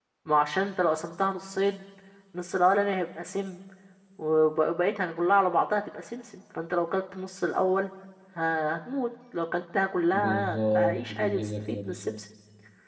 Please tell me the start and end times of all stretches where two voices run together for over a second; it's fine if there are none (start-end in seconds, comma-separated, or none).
10.1-12.2